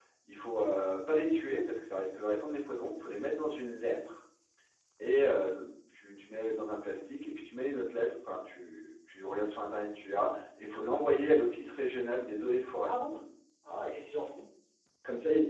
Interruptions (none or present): none